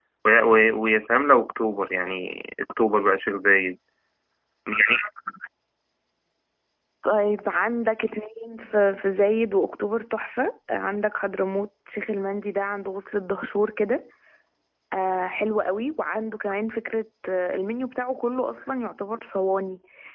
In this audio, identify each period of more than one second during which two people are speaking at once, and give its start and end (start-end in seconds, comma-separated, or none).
none